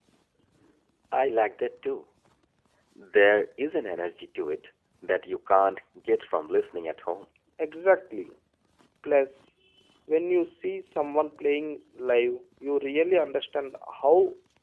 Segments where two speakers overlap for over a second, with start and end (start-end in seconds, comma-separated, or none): none